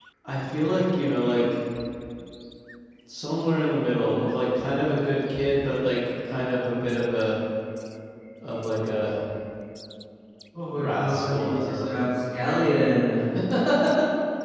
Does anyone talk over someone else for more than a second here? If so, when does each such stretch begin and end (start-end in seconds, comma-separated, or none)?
10.7-12.0